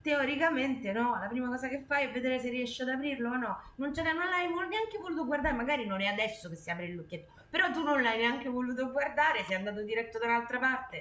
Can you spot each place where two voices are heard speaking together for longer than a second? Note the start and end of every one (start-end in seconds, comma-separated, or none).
none